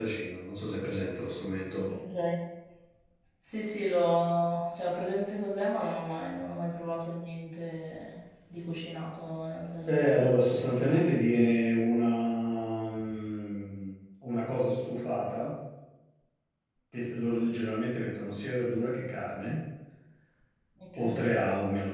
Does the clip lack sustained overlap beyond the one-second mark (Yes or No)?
Yes